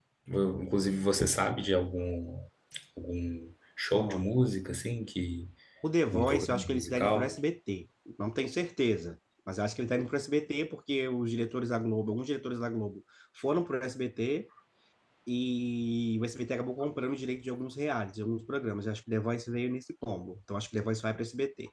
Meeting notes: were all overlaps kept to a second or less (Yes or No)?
No